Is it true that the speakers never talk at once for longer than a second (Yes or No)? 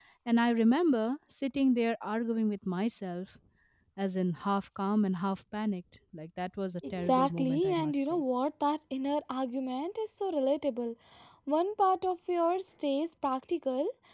No